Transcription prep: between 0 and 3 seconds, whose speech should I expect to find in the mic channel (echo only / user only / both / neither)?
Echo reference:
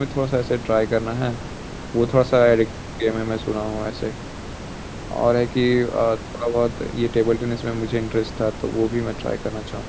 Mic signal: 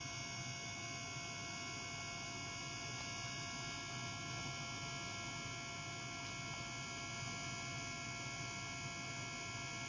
neither